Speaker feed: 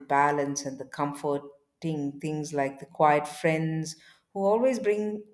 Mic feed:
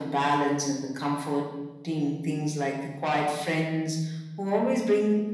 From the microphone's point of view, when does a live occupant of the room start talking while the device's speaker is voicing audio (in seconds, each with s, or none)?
none